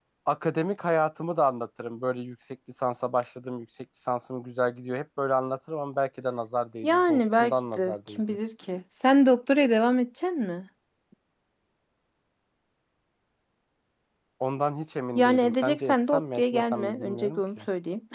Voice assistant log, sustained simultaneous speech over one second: present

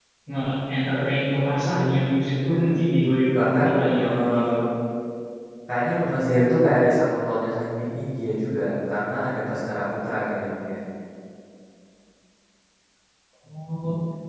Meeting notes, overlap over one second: present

